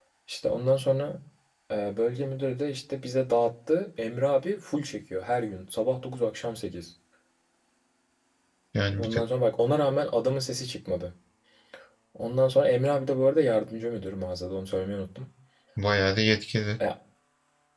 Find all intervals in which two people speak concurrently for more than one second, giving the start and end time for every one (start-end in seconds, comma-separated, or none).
none